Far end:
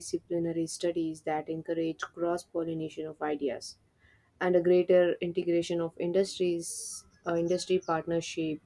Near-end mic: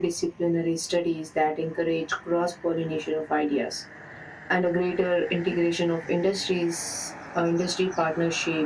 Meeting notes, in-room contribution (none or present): none